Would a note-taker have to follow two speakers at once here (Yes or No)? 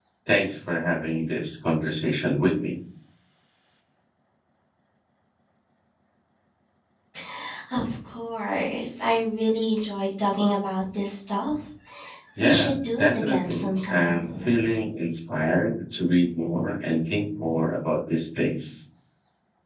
Yes